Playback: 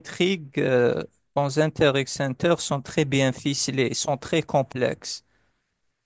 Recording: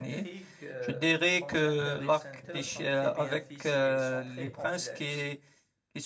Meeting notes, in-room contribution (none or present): present